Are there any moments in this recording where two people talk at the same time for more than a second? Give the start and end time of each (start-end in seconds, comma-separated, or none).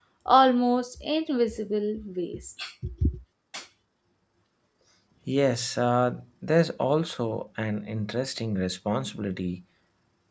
none